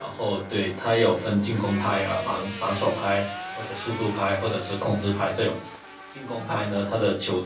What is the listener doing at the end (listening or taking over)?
listening